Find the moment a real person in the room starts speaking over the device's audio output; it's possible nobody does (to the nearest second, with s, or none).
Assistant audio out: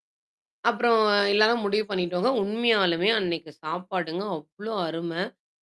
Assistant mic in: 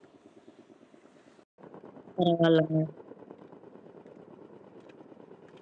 2 s